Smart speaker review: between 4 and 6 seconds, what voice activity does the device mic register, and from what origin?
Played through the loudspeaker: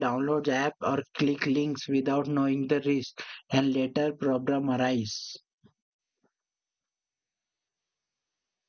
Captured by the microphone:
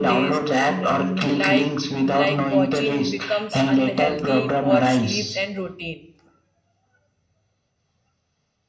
both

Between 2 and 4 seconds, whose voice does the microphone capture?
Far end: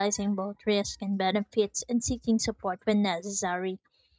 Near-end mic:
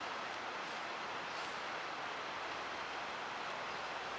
neither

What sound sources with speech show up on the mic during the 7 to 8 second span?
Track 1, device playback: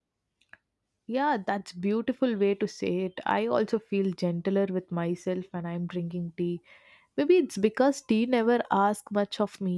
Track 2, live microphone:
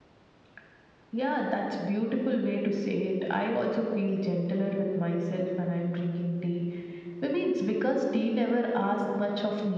echo only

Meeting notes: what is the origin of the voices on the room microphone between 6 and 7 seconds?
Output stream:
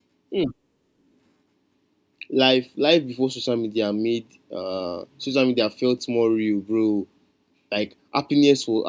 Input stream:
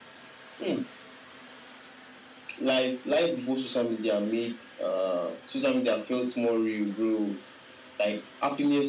echo only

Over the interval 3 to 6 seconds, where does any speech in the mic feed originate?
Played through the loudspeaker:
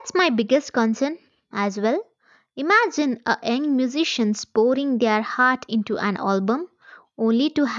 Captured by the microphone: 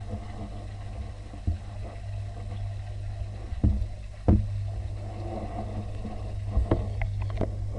neither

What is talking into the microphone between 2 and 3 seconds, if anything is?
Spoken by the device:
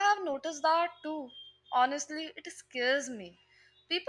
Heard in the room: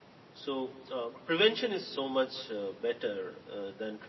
user only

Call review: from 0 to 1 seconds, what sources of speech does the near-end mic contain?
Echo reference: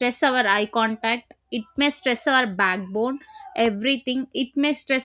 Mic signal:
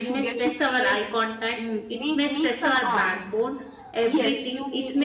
both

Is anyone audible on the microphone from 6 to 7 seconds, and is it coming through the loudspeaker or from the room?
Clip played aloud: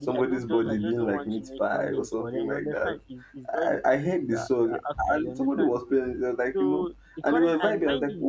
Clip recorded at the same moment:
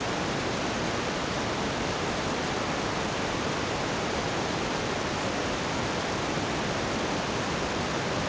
neither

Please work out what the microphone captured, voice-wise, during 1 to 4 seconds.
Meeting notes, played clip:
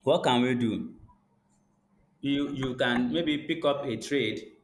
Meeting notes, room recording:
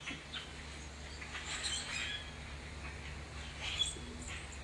neither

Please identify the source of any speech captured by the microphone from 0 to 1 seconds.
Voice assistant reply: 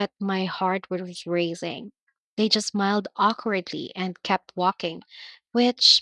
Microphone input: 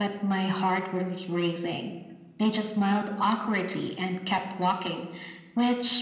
echo only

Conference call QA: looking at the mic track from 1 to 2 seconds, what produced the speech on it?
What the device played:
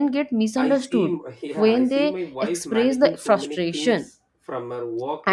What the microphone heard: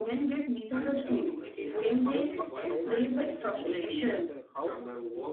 both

